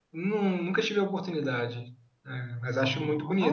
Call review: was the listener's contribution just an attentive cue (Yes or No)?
Yes